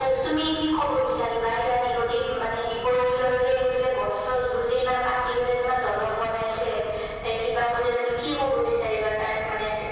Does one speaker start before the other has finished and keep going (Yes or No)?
No